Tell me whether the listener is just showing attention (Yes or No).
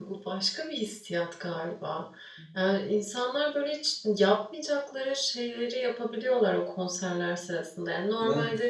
Yes